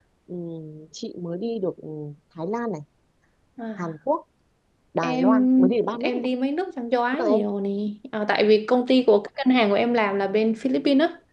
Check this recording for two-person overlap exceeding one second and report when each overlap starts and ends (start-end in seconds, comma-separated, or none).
5.0-6.3